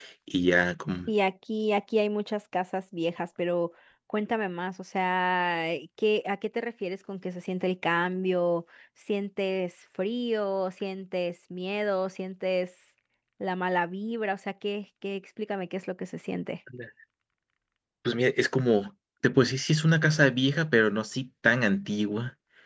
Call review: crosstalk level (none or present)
none